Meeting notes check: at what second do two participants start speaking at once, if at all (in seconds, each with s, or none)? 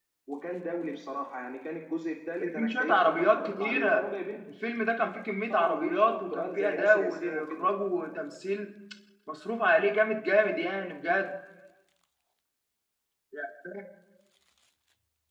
2.4 s